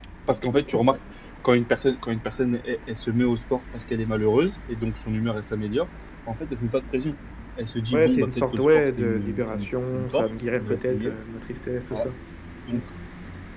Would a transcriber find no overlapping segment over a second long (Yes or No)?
No